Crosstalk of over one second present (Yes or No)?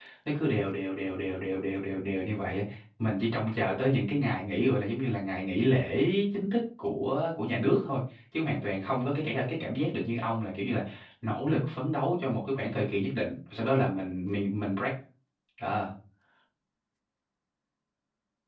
No